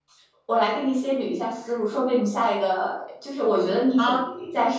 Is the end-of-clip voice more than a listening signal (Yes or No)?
No